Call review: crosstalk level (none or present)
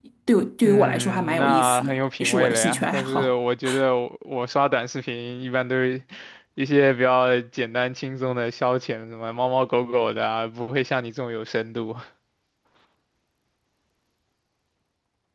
present